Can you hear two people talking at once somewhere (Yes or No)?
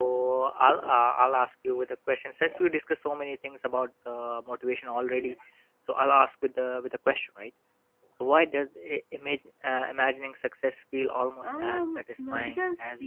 Yes